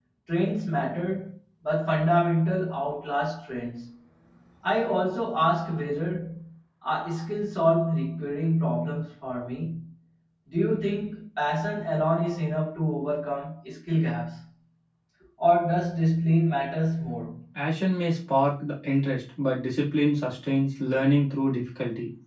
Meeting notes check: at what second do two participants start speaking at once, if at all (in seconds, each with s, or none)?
none